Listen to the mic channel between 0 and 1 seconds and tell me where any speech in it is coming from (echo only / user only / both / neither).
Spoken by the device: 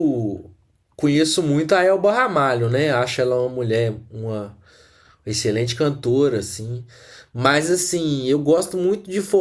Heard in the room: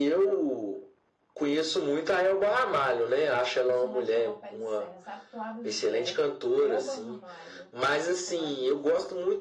echo only